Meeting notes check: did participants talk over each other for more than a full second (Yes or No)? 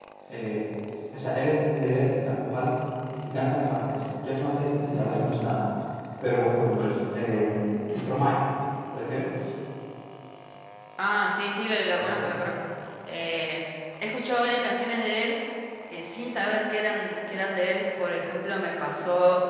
No